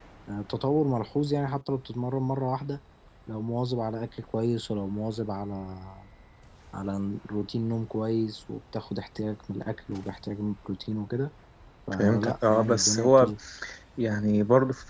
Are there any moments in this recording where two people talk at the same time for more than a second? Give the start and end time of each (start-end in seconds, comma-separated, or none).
12.0-13.3